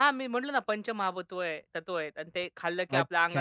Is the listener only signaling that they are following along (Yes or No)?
No